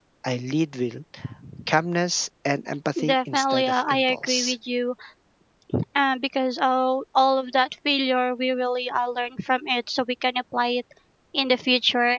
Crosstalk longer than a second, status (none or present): present